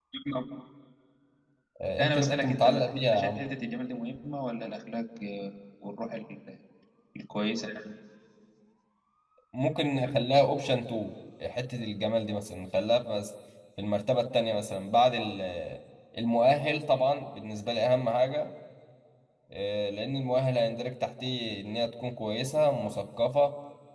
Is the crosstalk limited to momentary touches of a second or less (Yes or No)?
No